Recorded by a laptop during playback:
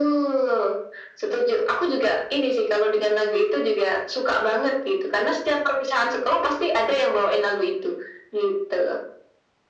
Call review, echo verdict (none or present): present